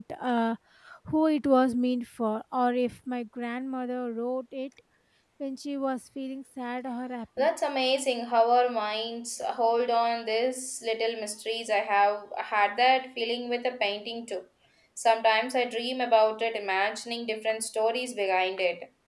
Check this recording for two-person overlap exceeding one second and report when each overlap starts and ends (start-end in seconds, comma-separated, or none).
none